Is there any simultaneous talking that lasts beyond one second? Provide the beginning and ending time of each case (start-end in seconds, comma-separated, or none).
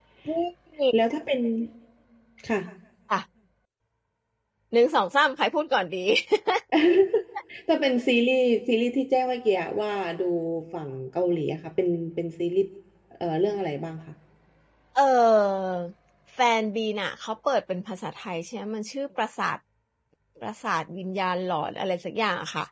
none